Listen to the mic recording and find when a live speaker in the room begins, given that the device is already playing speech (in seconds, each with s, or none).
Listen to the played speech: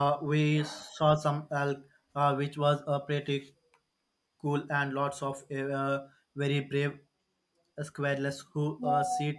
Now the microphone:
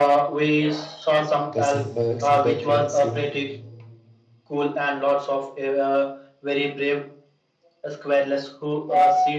1.5 s